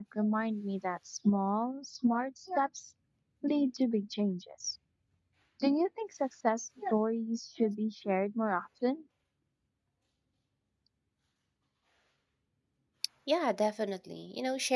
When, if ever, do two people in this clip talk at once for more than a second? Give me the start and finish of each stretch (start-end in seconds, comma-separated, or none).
none